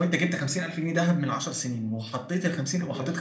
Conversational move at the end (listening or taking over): listening